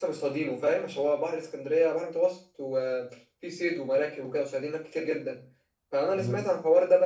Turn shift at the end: No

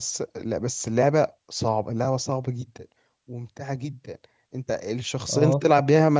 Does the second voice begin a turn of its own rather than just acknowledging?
No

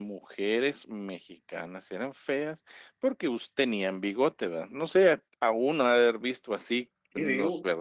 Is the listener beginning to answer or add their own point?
No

